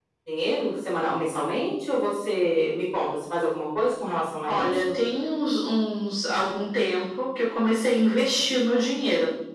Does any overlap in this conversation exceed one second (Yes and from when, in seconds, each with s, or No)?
No